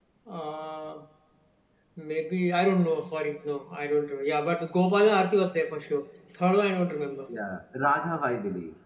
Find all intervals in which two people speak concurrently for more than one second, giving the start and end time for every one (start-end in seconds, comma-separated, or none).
none